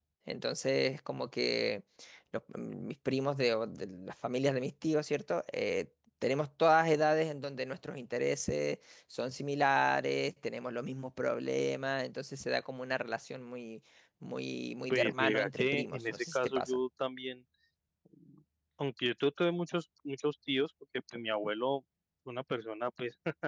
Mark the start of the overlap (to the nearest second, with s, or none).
15 s